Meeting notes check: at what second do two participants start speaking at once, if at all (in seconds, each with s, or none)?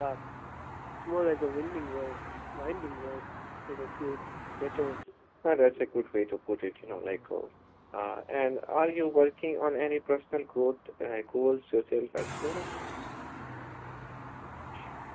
none